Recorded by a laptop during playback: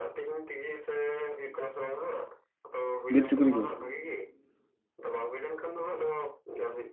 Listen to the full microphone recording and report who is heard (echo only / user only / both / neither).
both